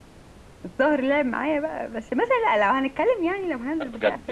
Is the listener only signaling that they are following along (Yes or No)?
No